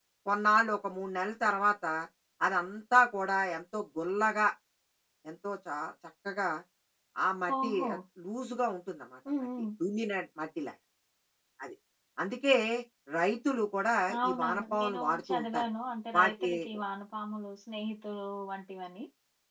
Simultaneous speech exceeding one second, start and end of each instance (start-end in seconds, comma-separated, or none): 14.2-15.6